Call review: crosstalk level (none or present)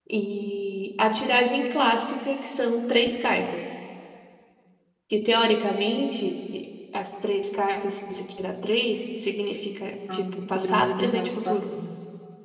present